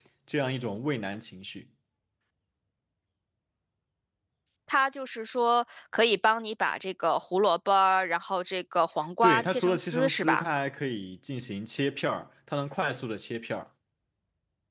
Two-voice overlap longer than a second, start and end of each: 9.2-10.4

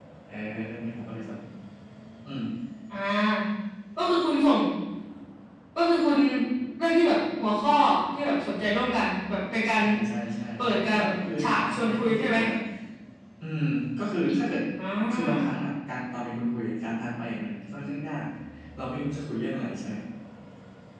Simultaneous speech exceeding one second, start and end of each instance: 10.6-12.4

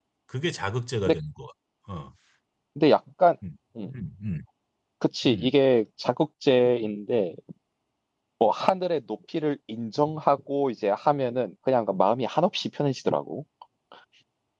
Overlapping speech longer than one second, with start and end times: none

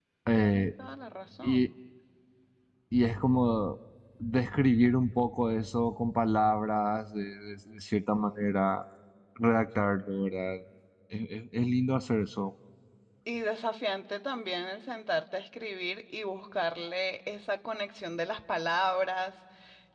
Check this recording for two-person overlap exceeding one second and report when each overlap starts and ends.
none

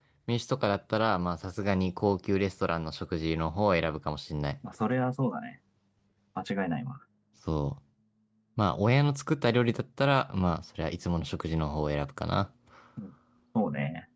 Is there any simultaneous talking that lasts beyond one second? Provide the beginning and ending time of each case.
none

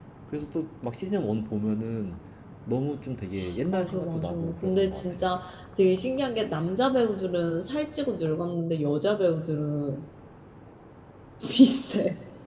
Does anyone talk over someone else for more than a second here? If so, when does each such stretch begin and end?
3.7-5.2

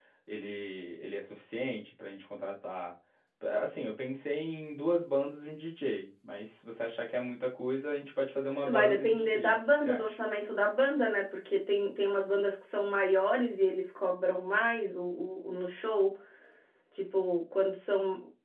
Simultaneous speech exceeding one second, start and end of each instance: 8.6-10.2

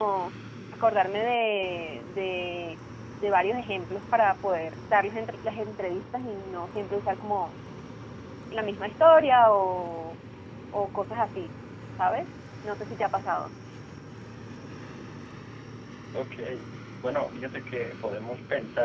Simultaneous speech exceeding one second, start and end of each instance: none

